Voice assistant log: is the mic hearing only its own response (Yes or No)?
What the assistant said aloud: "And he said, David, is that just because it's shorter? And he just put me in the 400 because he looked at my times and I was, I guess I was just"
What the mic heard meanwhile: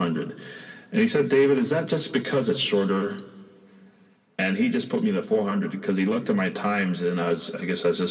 Yes